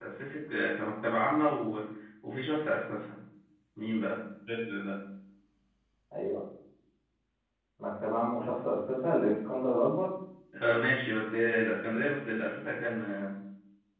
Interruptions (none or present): none